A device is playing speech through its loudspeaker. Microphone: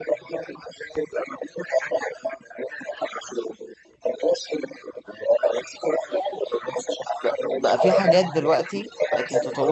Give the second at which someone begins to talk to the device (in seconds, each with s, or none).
7.2 s